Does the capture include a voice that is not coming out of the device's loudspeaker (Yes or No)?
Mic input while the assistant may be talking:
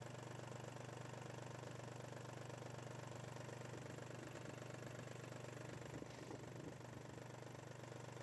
No